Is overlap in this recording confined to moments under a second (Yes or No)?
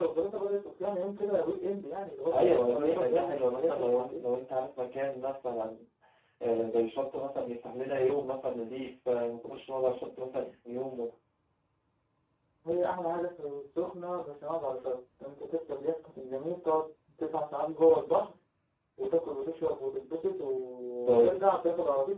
No